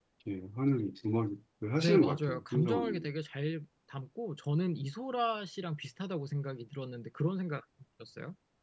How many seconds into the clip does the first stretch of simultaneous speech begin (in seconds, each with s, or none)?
1.8 s